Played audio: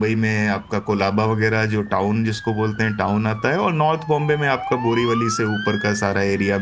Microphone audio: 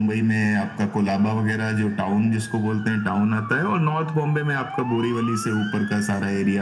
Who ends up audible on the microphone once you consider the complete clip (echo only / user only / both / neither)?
echo only